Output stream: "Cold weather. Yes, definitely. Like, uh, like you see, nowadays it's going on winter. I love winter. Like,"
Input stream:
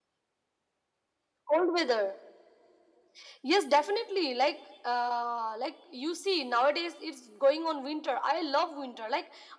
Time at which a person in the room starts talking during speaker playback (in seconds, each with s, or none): none